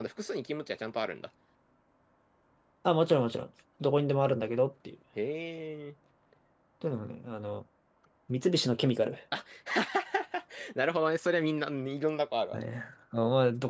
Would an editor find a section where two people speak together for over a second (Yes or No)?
No